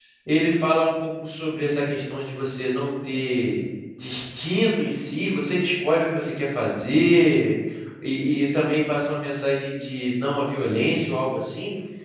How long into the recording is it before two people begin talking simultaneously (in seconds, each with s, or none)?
none